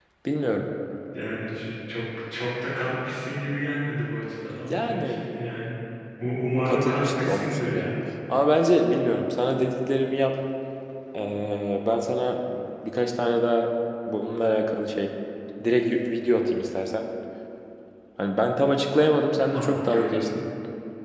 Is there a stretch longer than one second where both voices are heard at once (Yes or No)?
Yes